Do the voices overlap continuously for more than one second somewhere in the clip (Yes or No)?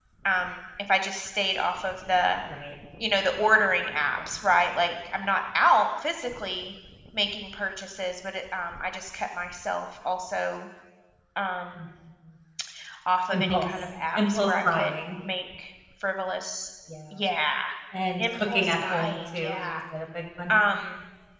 Yes